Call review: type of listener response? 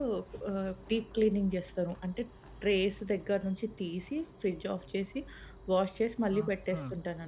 taking over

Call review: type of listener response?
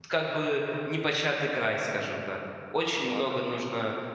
listening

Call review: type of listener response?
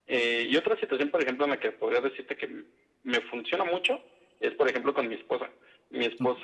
listening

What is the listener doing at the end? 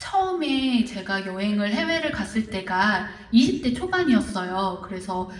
listening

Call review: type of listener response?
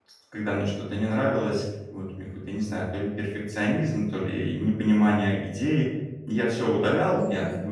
listening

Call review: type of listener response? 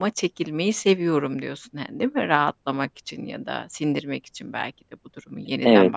taking over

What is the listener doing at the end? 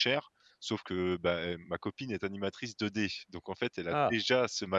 listening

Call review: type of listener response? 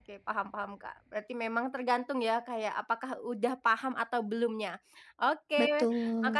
listening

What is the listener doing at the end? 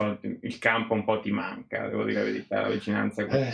taking over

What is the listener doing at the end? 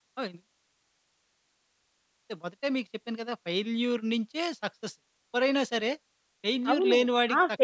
taking over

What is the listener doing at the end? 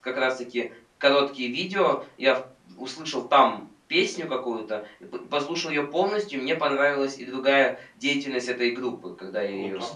taking over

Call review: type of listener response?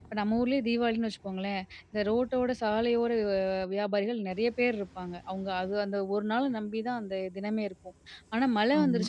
listening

